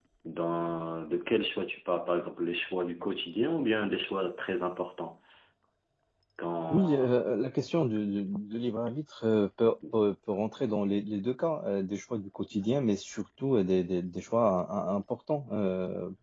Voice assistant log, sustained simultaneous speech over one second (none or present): none